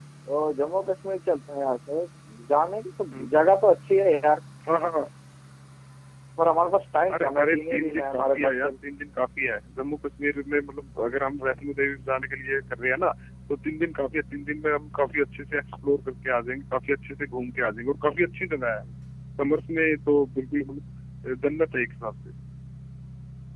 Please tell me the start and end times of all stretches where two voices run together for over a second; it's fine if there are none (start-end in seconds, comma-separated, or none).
7.1-8.7